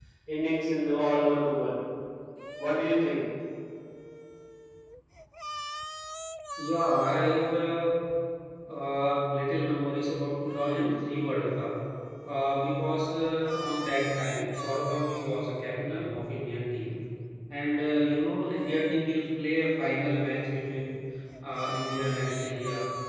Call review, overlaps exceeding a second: none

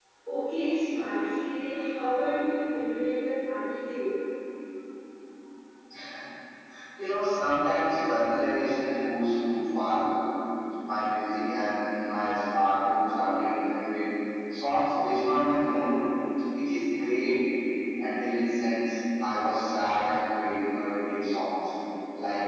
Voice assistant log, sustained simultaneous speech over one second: none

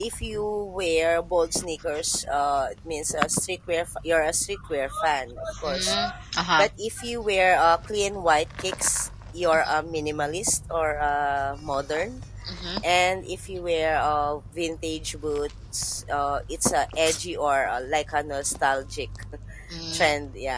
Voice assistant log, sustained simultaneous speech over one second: none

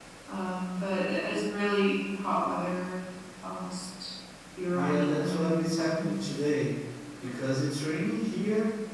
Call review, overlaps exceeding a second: present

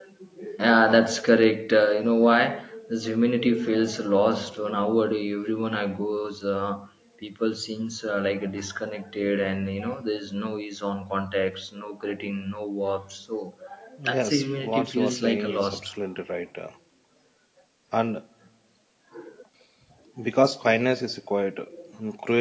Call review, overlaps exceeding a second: present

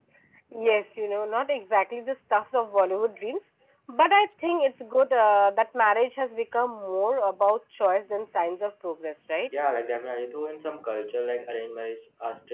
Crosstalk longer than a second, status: none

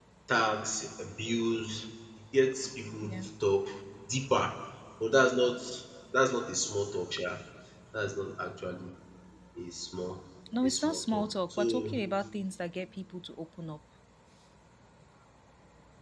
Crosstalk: present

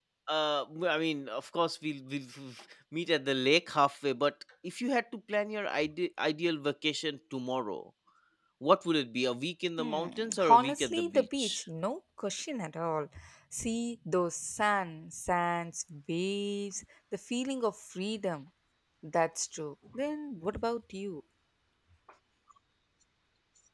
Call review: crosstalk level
present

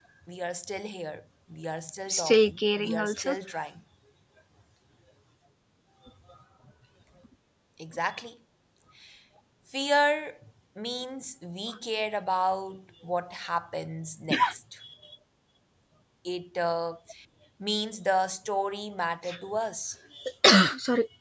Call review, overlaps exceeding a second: present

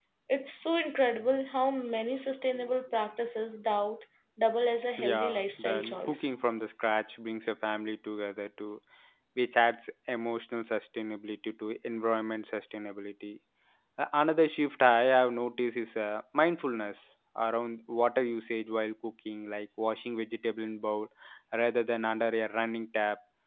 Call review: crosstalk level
present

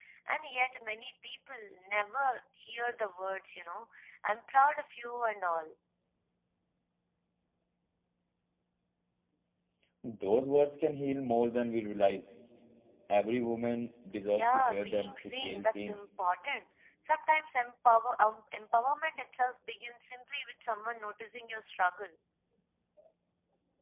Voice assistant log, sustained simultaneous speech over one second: present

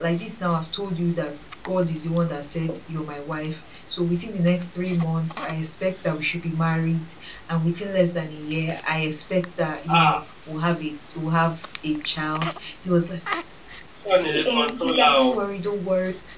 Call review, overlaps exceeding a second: present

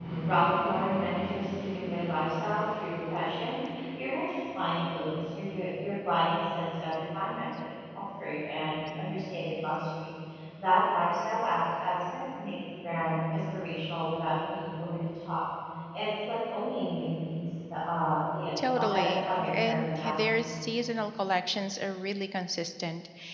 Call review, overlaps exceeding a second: present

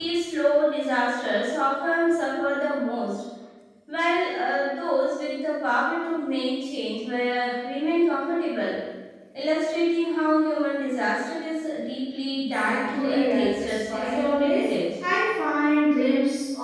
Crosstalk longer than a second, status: present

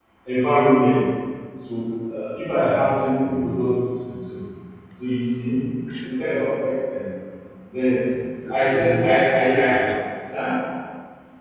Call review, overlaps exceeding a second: present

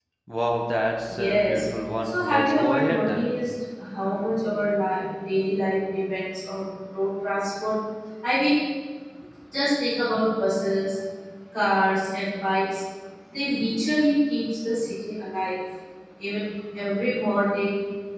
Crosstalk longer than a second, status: present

